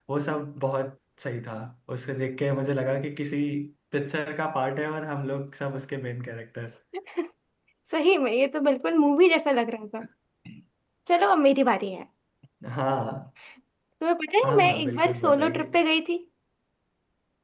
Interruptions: present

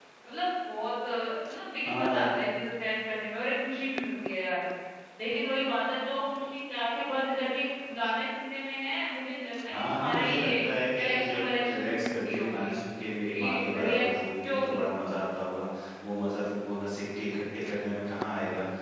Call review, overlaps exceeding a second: present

